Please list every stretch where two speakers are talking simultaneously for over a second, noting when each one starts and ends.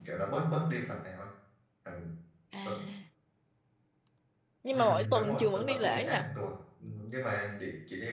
4.7-6.3

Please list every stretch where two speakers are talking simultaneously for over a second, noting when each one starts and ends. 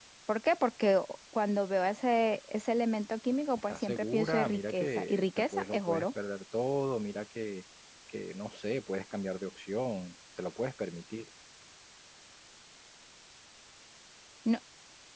3.7-6.0

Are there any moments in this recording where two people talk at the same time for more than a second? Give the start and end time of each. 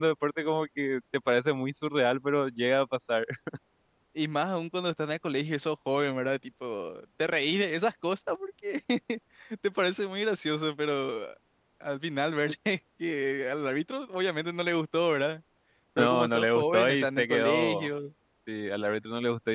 16.0-17.9

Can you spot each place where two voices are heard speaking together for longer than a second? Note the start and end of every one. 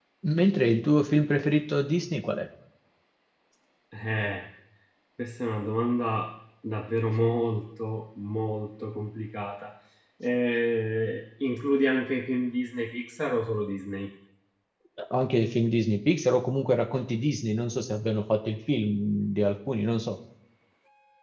none

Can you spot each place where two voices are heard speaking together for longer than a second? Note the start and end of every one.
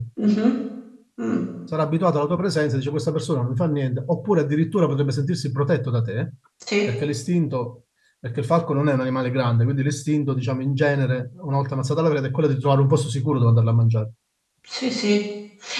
none

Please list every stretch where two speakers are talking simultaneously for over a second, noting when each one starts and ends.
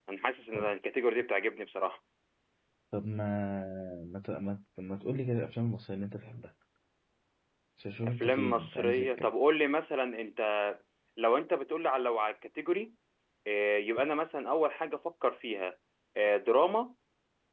8.0-9.3

